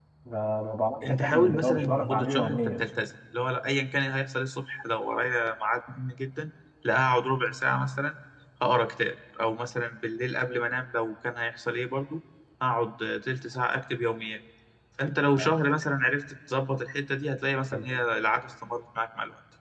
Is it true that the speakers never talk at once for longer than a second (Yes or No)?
No